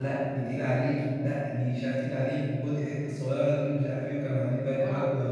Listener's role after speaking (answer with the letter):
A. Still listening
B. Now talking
B